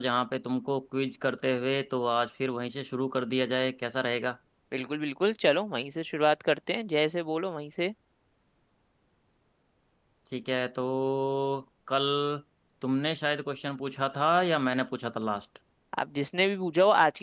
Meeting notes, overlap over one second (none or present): none